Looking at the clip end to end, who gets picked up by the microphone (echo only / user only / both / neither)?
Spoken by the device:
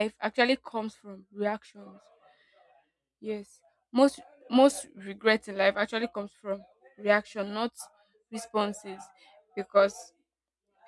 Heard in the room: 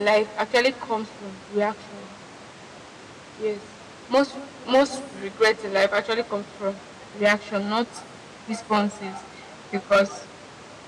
echo only